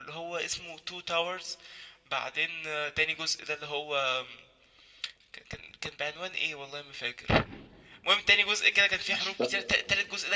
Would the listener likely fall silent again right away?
Yes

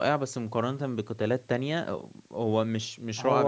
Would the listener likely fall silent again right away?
No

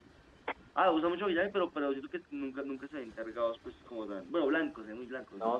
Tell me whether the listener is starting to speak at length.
Yes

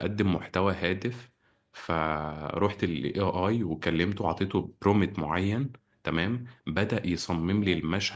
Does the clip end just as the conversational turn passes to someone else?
No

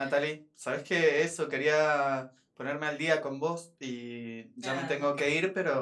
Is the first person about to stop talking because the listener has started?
No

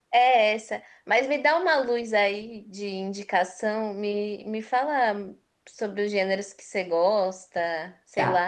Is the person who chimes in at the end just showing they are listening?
No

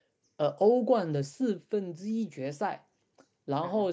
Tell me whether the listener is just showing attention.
Yes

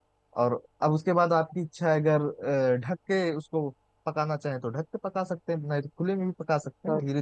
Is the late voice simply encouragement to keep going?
Yes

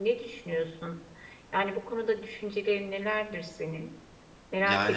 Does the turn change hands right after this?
Yes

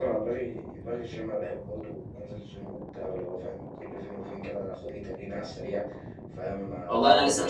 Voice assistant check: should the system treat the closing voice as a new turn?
Yes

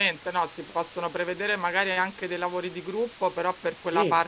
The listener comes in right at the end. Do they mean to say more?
No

